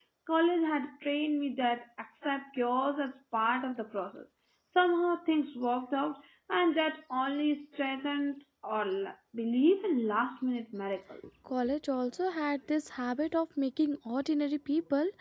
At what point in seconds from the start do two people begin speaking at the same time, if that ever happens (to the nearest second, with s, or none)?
none